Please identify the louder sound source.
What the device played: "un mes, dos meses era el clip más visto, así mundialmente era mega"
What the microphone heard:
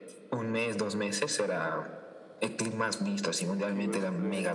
echo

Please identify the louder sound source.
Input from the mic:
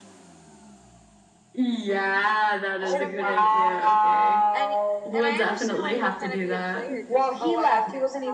echo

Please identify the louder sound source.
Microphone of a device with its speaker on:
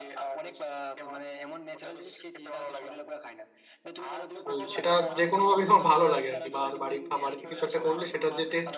user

